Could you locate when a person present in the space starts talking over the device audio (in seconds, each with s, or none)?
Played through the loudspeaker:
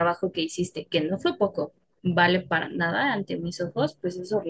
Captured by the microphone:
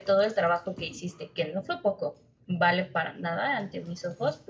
none